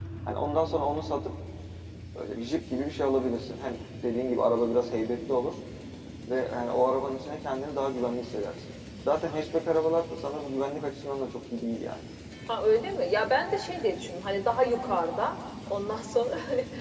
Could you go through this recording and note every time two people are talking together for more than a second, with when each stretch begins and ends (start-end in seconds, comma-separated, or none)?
none